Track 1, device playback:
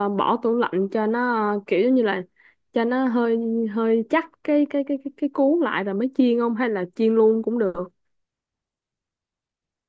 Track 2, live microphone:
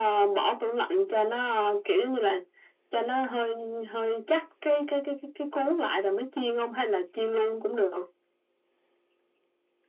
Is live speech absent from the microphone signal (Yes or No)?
Yes